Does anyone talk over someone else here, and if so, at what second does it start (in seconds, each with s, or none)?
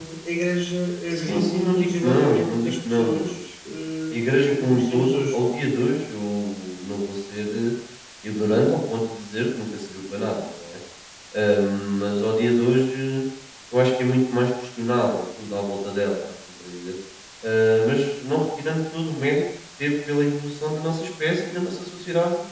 1.1 s